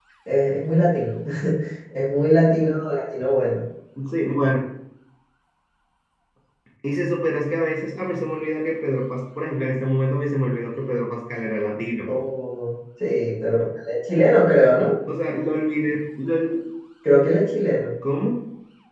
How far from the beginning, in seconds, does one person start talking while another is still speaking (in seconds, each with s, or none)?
none